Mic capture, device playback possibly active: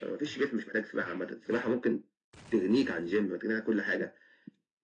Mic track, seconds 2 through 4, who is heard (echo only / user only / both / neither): echo only